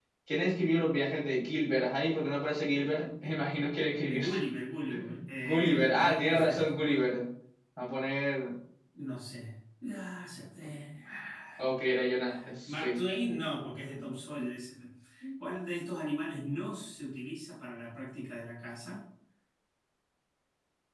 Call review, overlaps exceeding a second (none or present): present